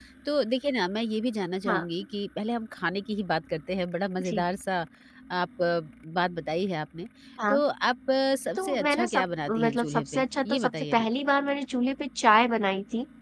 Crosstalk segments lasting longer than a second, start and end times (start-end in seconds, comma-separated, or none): 8.6-11.1